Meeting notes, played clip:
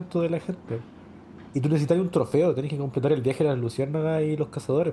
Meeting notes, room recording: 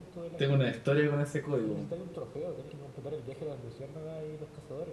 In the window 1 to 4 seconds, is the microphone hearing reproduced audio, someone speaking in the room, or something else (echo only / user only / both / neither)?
both